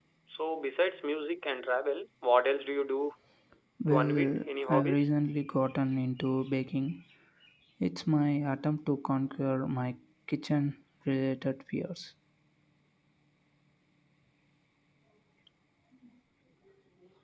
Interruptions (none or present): present